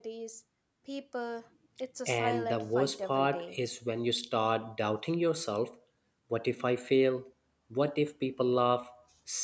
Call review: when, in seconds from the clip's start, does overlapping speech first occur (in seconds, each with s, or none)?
2.1 s